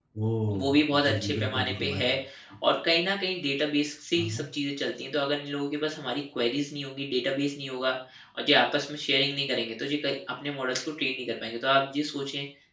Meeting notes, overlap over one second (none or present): present